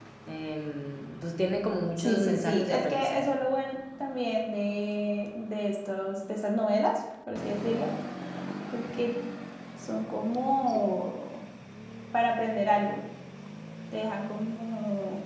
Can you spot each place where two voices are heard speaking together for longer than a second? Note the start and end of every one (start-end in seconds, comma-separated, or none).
2.0-3.2